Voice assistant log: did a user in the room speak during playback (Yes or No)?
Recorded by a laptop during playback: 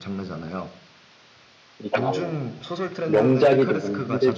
Yes